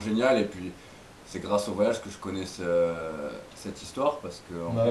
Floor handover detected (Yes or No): No